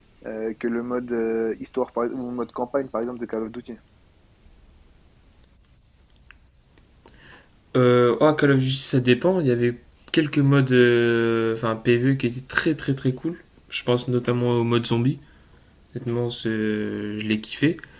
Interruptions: none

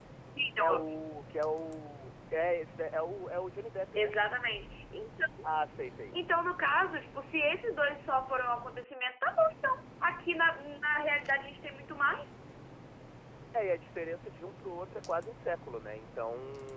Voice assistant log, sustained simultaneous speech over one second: none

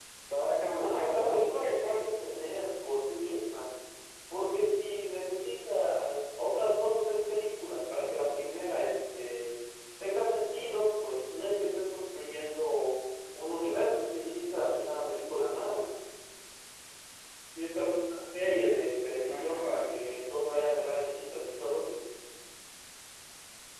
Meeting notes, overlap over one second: present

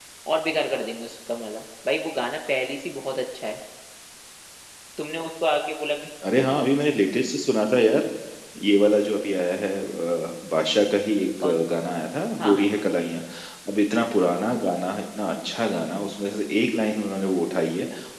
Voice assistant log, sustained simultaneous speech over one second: none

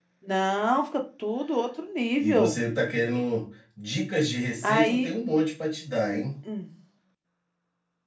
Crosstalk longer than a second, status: none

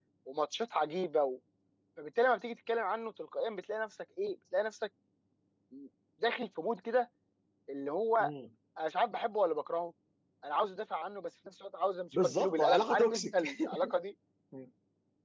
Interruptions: present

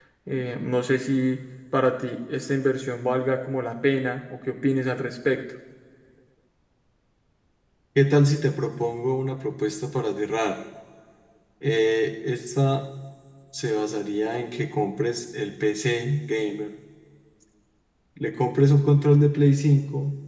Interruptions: none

